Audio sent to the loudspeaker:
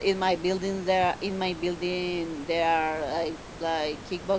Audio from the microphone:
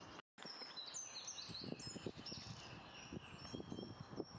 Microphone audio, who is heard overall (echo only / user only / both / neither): neither